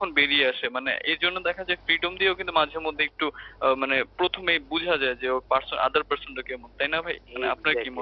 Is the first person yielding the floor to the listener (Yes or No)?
Yes